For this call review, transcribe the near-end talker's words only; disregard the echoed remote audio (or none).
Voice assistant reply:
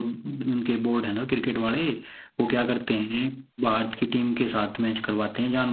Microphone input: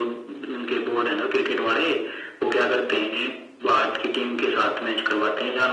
none